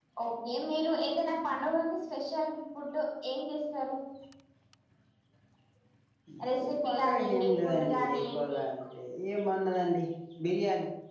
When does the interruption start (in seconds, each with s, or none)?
6.7 s